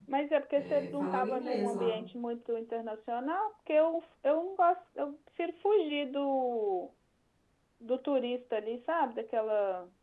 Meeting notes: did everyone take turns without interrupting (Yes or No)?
No